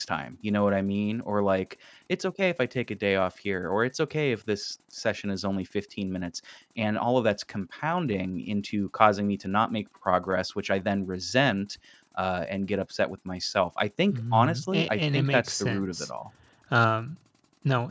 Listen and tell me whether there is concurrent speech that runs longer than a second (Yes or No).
Yes